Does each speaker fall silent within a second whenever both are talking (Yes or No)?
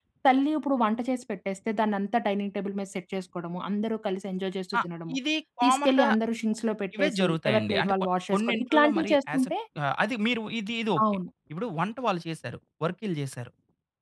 No